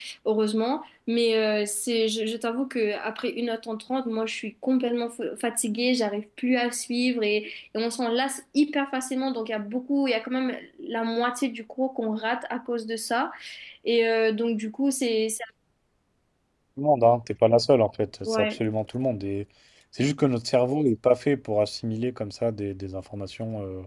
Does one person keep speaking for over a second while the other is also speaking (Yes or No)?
No